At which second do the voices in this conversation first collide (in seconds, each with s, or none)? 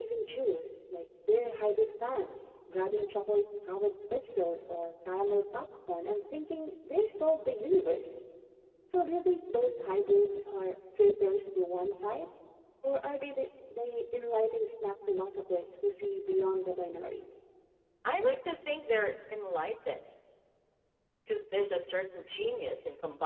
none